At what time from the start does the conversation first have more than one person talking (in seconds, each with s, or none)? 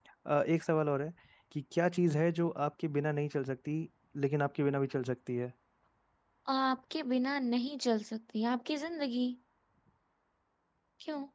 none